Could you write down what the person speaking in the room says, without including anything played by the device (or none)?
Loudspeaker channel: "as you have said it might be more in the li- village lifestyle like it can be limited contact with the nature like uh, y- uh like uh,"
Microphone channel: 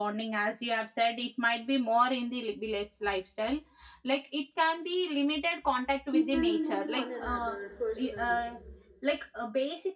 people know one another personally